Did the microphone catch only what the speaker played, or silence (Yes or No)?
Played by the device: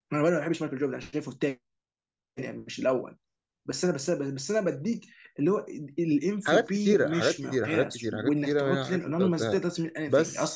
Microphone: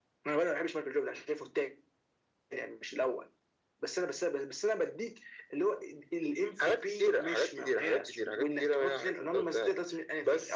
Yes